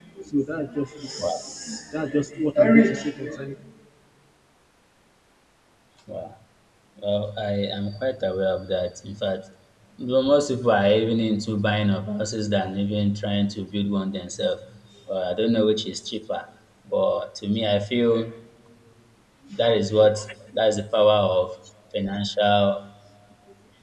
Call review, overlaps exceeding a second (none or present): none